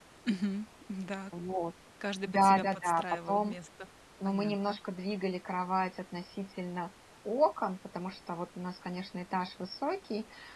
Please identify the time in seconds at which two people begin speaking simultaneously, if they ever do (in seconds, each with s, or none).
2.3 s